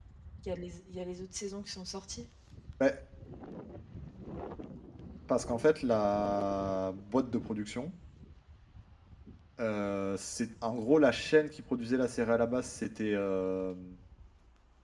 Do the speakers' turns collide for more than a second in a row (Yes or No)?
No